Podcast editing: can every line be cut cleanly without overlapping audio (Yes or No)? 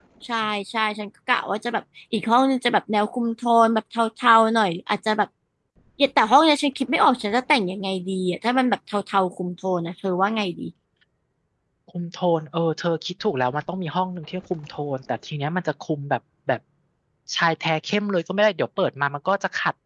Yes